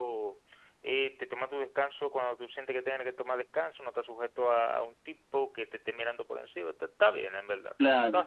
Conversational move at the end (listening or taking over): taking over